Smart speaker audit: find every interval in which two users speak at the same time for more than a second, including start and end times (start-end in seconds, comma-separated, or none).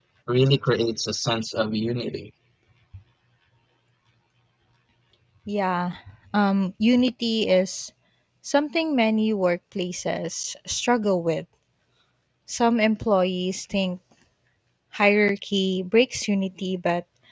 none